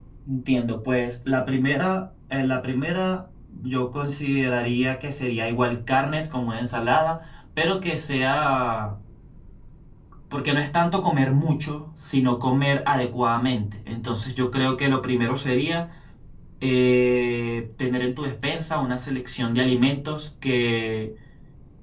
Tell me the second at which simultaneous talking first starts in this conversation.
none

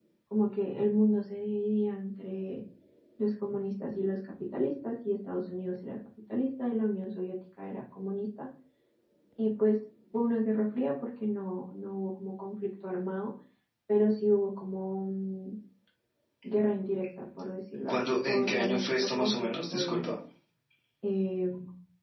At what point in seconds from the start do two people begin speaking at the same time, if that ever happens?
17.9 s

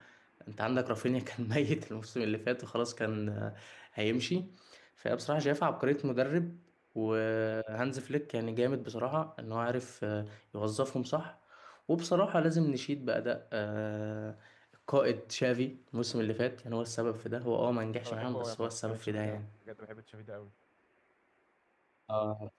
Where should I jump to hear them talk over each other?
18.0 s

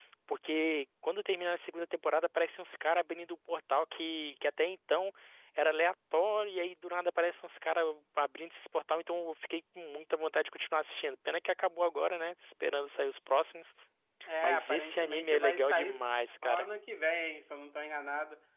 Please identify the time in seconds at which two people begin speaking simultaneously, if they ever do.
14.4 s

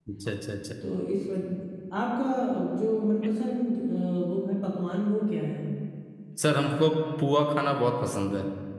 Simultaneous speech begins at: none

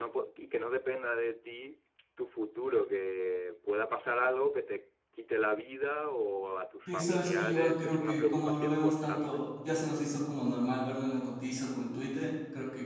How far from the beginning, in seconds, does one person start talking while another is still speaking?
6.9 s

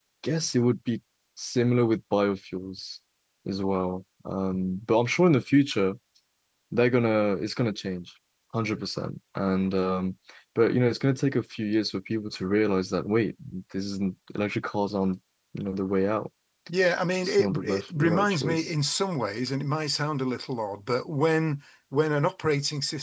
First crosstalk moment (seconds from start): 17.2 s

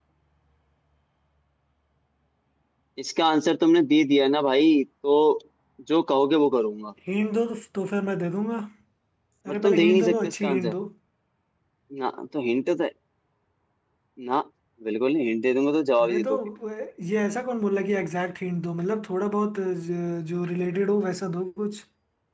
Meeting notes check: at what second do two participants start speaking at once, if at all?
9.5 s

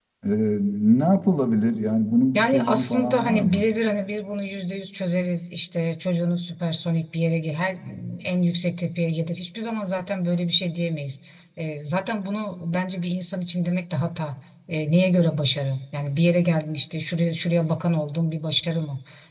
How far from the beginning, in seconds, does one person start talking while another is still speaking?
2.3 s

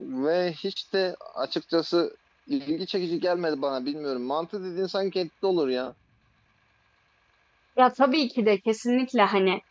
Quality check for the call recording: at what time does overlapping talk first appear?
none

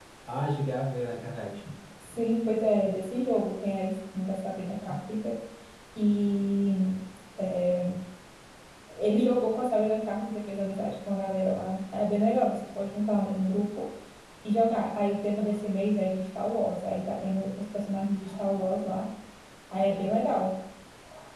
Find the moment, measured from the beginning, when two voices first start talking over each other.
none

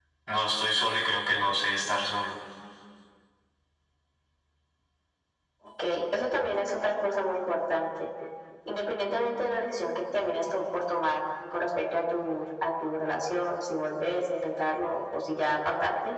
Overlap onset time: none

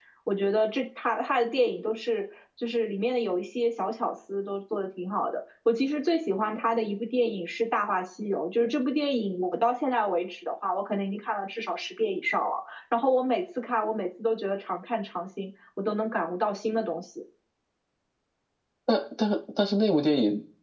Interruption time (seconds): none

